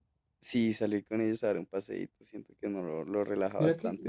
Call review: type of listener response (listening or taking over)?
taking over